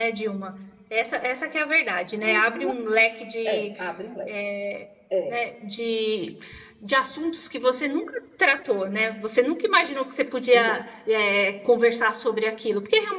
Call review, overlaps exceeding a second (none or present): none